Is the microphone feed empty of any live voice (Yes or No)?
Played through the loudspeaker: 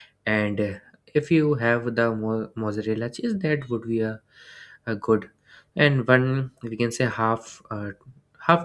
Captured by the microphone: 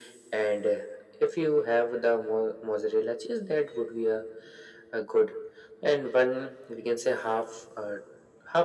Yes